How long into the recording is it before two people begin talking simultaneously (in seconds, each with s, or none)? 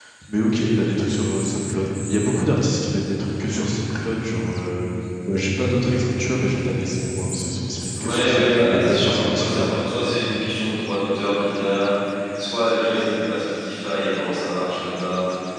8.0 s